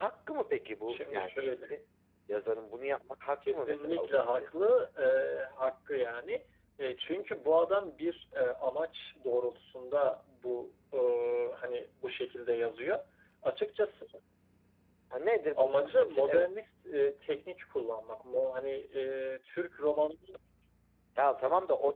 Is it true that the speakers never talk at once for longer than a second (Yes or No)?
No